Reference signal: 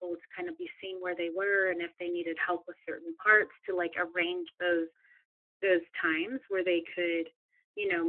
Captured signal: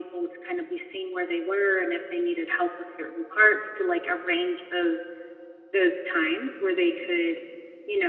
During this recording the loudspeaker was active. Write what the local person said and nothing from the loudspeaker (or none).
none